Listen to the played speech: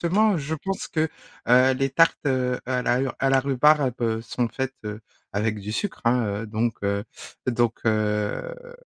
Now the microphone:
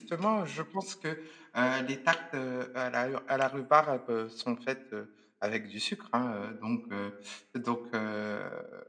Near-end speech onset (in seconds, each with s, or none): none